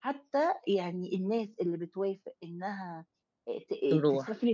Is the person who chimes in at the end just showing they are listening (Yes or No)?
Yes